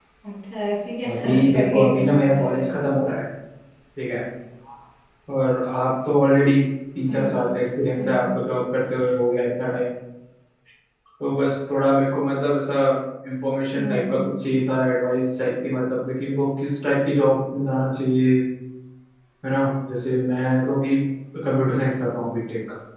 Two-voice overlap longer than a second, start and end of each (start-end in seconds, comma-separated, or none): 1.1-2.8